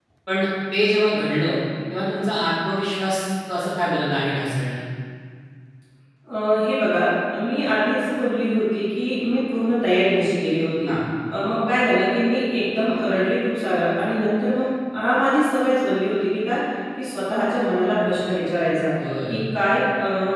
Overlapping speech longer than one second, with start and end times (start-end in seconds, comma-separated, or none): none